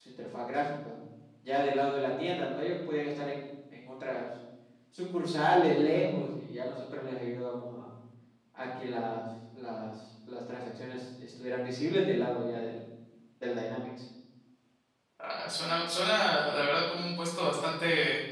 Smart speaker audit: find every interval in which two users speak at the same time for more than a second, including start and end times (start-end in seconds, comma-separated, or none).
none